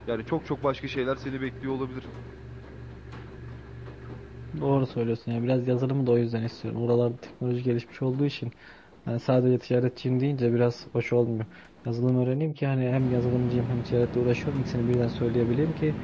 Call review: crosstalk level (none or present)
none